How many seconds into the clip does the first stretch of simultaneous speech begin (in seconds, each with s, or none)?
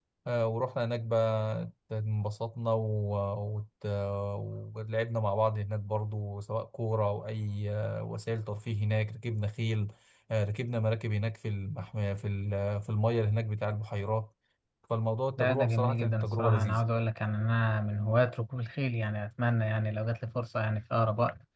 15.4 s